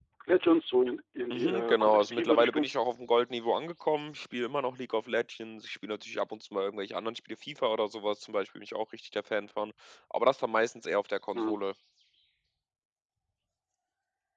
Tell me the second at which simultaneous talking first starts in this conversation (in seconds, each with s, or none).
1.3 s